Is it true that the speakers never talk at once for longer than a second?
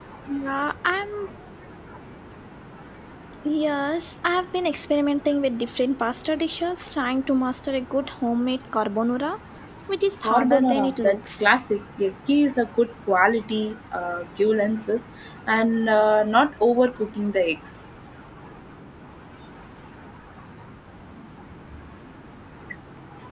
No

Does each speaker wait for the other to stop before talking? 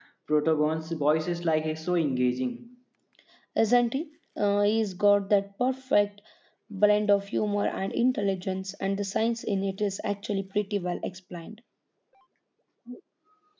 Yes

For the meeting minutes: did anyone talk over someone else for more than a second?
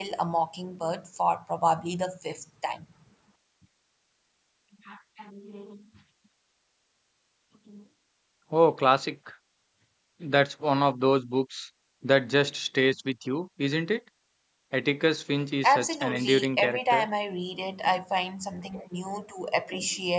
Yes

